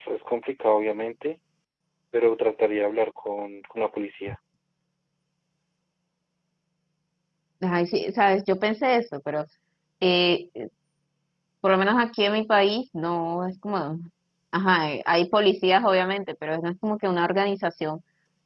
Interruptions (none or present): none